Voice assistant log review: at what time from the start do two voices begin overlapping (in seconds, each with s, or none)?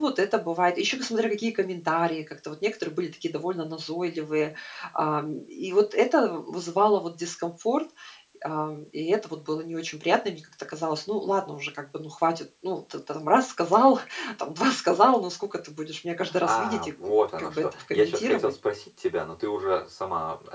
16.4 s